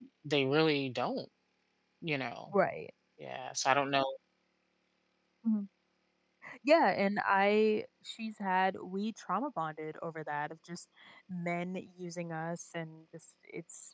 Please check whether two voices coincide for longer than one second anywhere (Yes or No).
No